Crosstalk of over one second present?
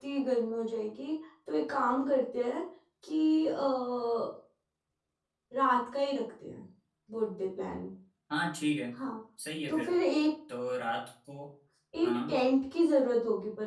No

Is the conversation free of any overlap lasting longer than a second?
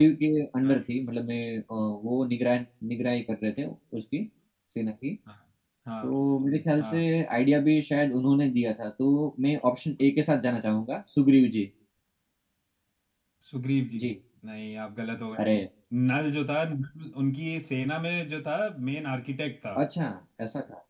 Yes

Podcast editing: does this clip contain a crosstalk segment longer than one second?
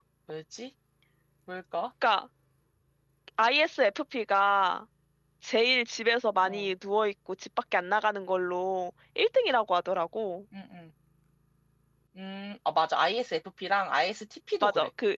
No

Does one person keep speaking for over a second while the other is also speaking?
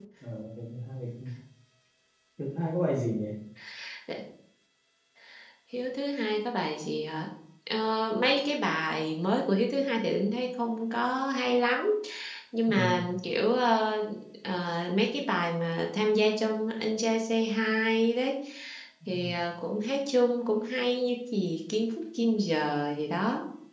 No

